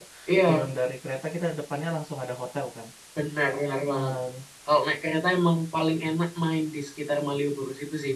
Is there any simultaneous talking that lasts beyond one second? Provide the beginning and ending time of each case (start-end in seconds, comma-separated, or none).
none